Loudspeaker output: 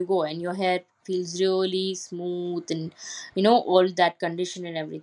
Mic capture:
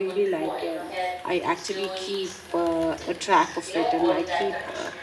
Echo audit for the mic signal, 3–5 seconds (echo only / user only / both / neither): both